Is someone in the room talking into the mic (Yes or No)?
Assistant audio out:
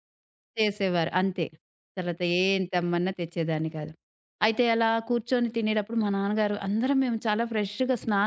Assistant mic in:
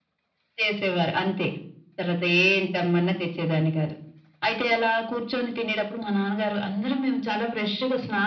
No